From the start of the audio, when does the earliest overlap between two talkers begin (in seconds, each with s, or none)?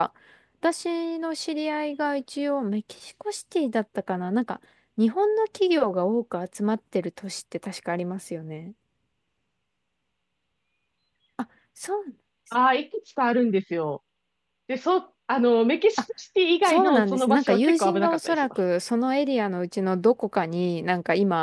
16.6 s